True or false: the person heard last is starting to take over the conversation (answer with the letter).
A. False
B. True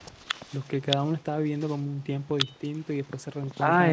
B